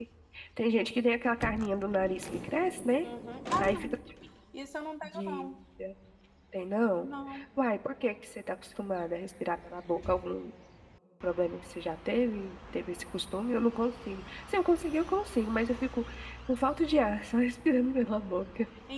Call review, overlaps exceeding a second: none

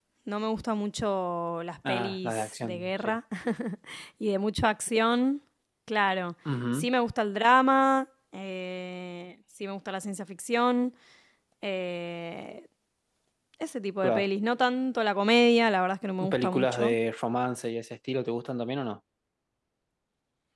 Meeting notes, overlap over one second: present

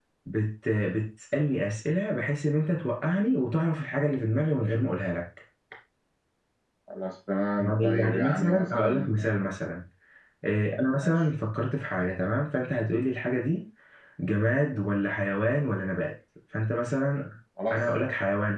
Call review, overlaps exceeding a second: present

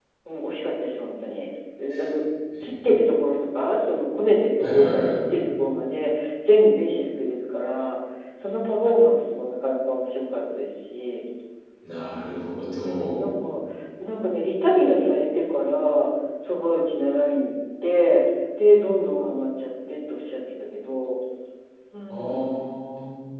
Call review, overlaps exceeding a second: none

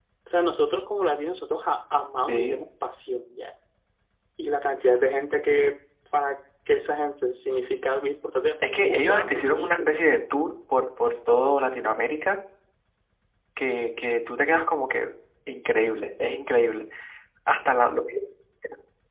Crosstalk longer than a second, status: present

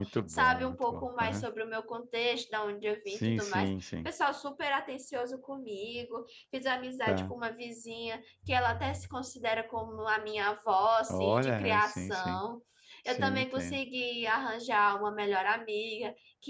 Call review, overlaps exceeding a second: present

